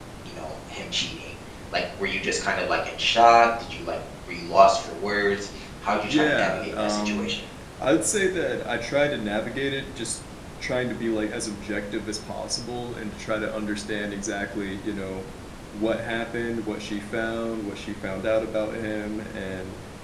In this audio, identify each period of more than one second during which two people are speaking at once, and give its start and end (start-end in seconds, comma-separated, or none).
6.1-7.3